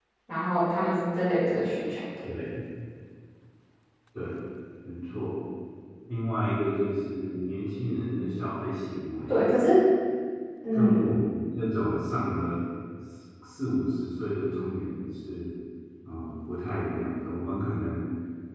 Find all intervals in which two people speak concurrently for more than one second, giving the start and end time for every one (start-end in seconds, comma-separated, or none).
none